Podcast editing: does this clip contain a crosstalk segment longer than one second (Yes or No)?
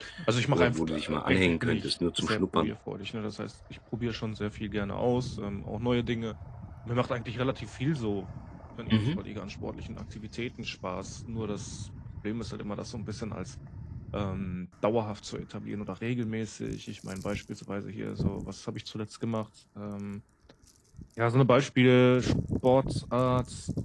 Yes